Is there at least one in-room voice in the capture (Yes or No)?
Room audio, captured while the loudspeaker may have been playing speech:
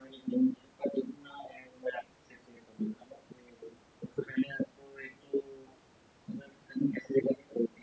No